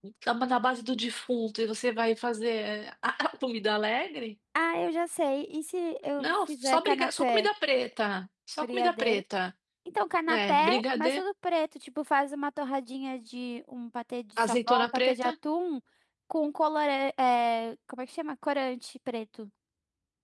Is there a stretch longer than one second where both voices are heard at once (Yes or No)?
Yes